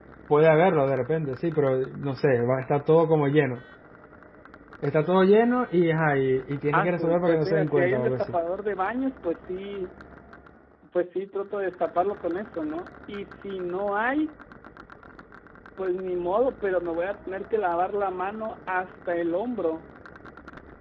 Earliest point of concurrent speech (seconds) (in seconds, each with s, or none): 6.7 s